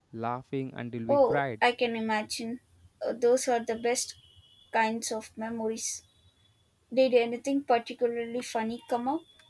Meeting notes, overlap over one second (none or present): none